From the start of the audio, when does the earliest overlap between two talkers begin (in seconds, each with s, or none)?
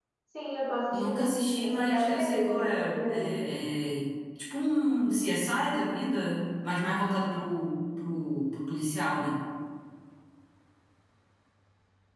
0.9 s